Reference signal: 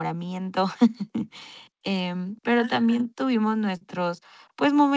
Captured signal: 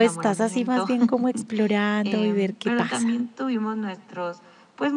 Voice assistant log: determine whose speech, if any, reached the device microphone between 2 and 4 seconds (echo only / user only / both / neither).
both